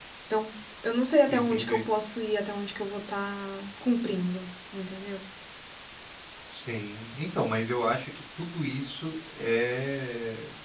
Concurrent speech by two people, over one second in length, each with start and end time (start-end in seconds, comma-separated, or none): none